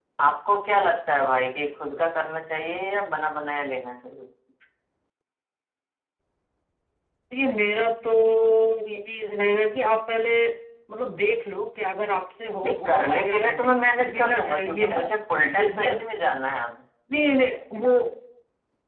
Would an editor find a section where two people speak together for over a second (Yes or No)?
Yes